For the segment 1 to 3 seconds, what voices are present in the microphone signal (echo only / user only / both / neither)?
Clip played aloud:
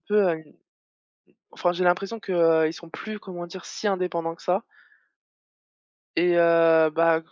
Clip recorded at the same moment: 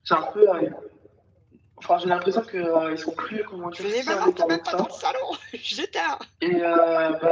echo only